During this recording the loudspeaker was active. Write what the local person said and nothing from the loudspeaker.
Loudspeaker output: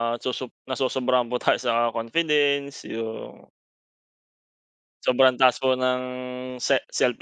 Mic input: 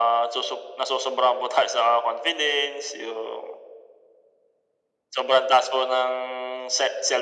none

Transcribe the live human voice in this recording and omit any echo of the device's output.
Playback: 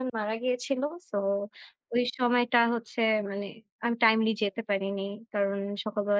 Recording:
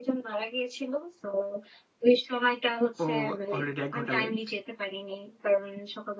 ও অলরেডি ১ ঘন্টা লেট।

